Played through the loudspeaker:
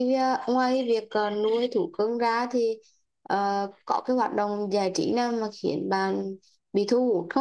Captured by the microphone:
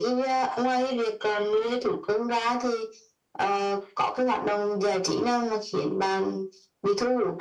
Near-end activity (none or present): none